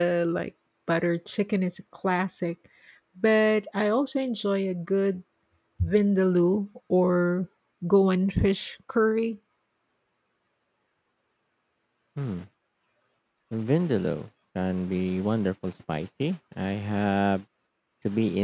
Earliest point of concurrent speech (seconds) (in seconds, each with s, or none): none